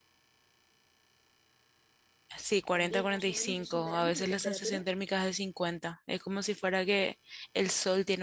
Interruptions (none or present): present